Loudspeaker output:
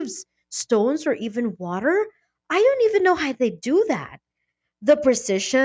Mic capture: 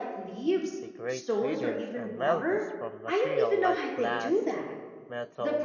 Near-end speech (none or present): present